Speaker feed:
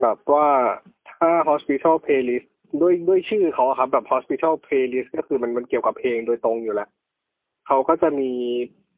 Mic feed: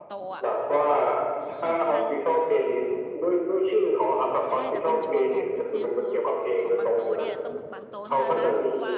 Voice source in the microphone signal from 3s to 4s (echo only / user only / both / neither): echo only